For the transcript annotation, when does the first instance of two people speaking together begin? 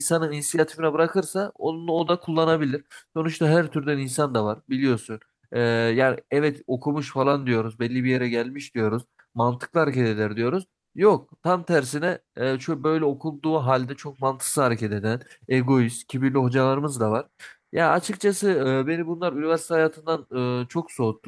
none

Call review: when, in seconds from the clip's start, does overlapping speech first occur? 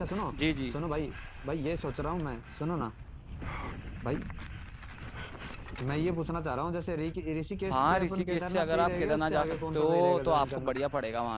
7.7 s

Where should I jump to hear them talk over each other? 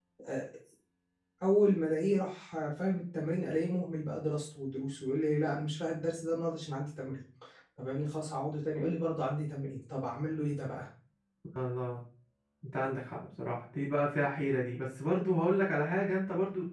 none

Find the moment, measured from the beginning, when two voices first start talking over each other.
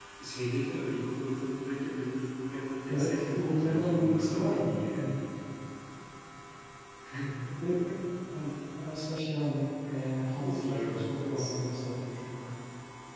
2.9 s

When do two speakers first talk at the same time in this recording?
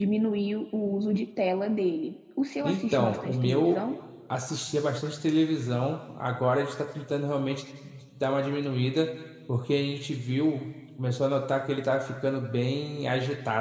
2.6 s

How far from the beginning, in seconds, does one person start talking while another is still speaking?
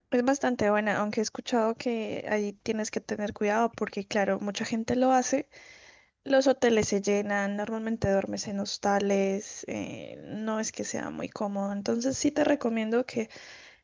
none

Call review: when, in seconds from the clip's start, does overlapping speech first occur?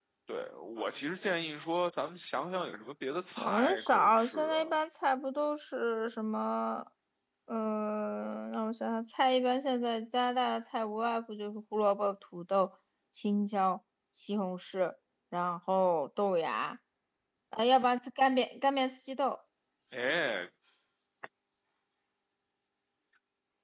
3.4 s

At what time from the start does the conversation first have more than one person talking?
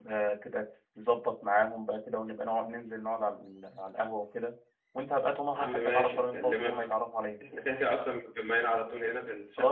5.5 s

